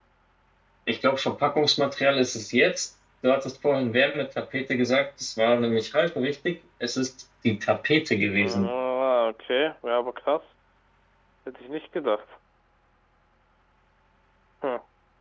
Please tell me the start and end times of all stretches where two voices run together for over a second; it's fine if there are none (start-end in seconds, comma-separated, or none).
none